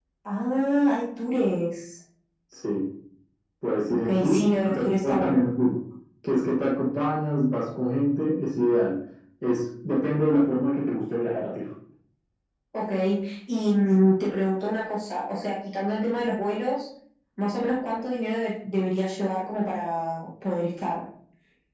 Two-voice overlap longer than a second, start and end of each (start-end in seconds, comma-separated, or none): 3.9-5.4